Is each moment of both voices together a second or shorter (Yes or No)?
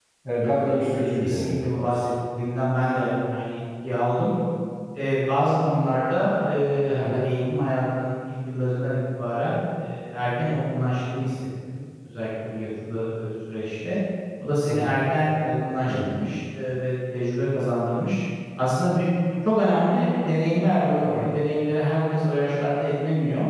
No